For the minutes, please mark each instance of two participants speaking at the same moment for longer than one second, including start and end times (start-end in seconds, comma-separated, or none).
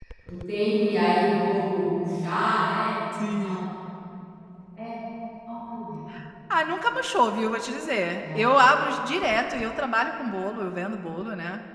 none